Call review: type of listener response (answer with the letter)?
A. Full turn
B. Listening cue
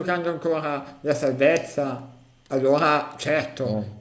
B